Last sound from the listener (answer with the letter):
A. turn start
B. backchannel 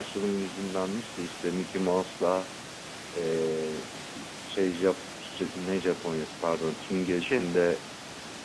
B